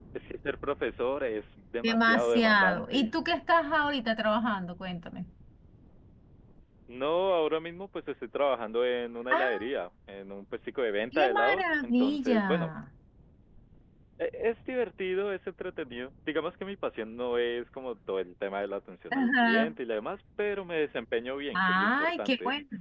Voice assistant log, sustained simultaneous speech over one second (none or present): present